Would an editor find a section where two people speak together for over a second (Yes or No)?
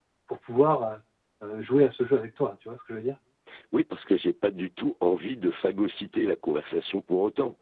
No